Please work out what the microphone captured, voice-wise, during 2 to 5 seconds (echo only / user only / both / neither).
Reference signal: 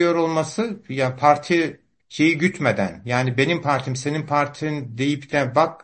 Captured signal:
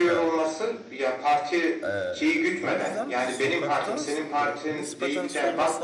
both